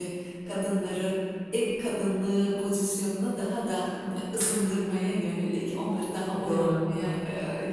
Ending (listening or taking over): listening